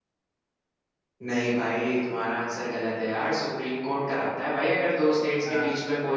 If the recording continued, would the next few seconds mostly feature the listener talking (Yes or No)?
No